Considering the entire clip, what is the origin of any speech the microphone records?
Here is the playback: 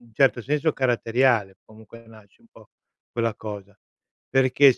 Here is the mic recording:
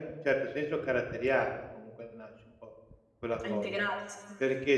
both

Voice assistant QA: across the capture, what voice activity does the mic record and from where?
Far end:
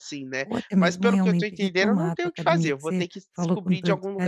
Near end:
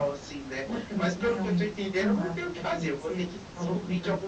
echo only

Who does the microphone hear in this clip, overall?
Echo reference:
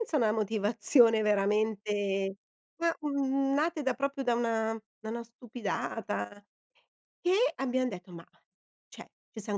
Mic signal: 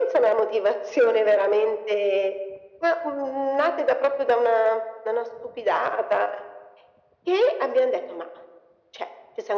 echo only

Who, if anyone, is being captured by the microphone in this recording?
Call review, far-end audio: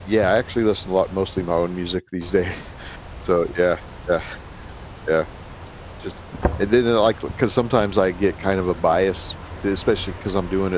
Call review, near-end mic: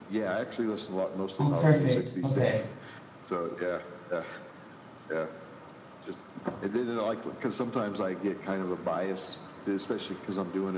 both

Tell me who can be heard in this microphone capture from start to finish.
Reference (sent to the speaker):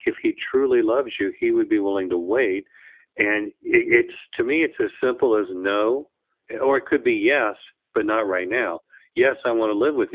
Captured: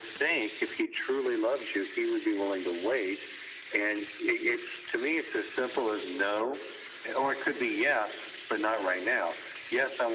echo only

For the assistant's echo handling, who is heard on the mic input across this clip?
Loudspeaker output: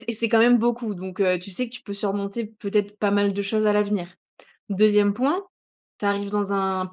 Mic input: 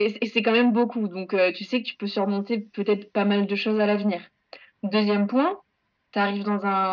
echo only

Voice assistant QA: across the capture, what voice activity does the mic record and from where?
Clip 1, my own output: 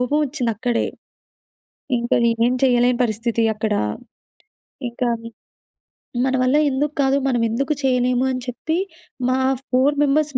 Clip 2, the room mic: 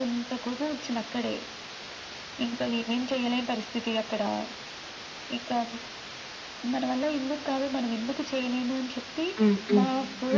both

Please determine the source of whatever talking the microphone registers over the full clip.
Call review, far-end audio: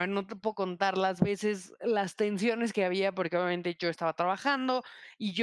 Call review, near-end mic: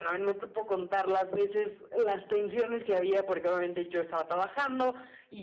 echo only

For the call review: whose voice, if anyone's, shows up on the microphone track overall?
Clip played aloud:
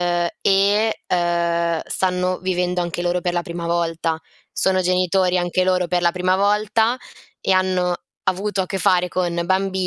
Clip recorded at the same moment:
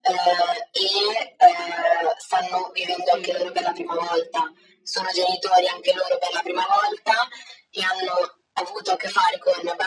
both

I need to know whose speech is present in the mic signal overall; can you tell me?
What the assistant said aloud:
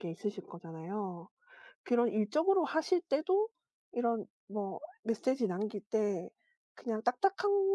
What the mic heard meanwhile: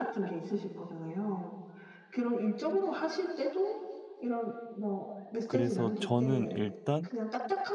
both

